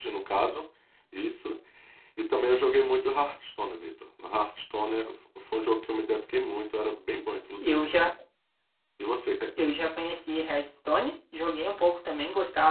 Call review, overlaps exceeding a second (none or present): none